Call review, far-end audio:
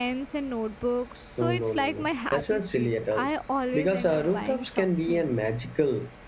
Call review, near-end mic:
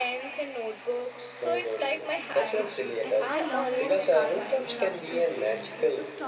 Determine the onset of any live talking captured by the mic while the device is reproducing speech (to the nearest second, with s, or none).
2 s